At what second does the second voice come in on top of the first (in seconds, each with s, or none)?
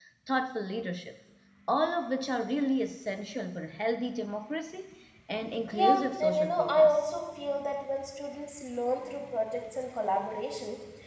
5.7 s